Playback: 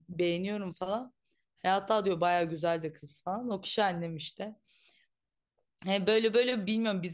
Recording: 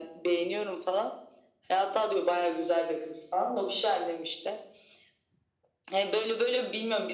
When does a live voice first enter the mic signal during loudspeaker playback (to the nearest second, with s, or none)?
none